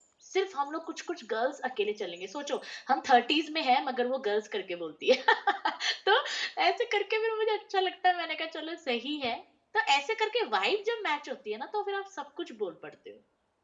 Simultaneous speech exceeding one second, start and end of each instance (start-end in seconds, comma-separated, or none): none